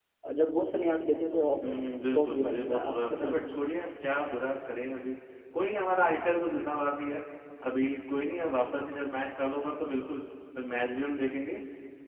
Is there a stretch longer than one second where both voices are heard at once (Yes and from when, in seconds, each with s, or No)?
Yes, from 2.1 s